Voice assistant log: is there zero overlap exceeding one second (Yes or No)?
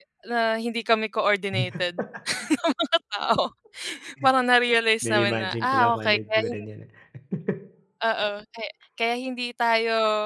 No